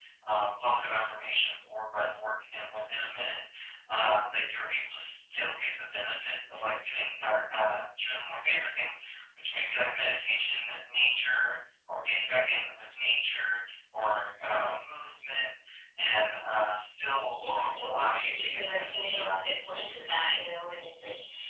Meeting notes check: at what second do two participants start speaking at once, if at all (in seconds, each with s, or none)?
17.3 s